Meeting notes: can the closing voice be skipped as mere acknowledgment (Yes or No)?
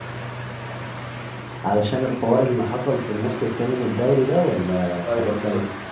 No